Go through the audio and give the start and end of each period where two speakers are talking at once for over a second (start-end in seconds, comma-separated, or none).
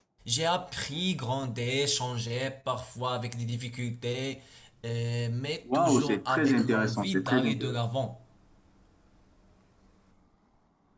5.7-7.8